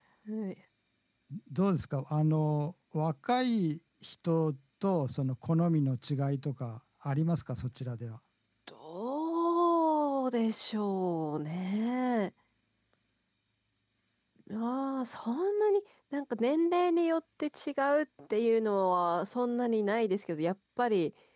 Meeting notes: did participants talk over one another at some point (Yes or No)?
No